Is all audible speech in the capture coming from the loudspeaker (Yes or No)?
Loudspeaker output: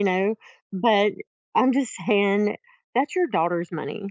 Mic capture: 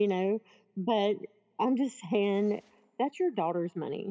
Yes